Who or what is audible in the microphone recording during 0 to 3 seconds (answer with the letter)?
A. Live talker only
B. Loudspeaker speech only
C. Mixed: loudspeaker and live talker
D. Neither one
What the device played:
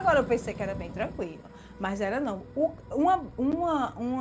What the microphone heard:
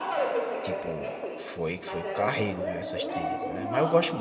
C